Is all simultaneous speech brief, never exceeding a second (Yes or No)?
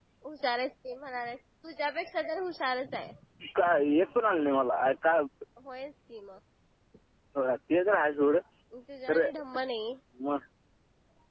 Yes